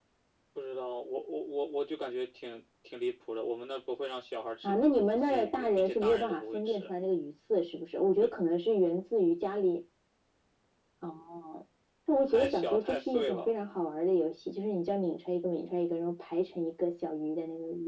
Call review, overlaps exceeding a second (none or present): present